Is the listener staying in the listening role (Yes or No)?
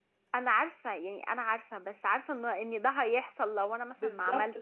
No